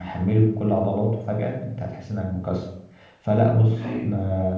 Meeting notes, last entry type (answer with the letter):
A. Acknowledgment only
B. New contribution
A